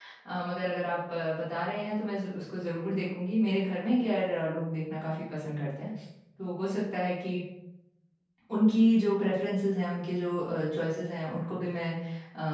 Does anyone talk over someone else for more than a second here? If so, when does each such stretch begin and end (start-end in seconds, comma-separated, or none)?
none